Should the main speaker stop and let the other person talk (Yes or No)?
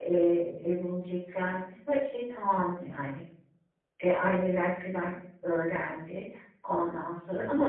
No